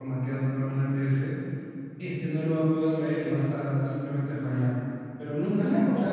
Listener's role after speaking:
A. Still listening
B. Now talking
B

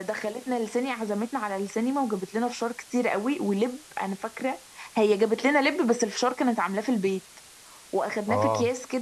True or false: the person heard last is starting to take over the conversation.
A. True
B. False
B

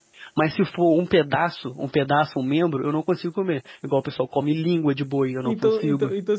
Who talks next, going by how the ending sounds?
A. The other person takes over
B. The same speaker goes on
A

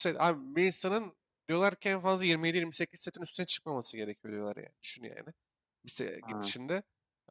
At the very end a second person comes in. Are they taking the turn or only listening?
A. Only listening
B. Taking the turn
A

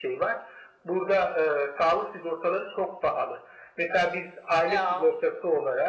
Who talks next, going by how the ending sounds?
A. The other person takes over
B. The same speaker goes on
B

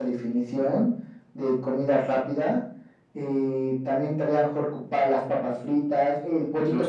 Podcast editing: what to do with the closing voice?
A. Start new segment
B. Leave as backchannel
B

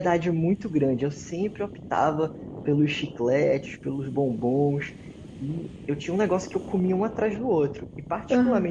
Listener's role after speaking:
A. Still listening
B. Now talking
A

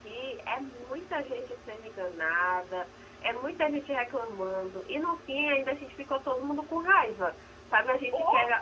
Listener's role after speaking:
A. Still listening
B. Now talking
A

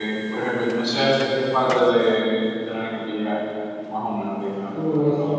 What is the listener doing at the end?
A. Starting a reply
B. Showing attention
A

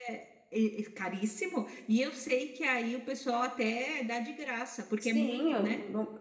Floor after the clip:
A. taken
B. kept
A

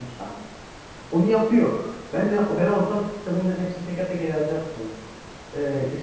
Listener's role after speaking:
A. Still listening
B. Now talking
A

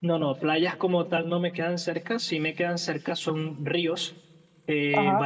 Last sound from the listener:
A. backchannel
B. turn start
A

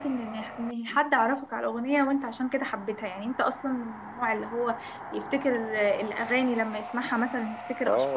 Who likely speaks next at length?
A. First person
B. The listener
B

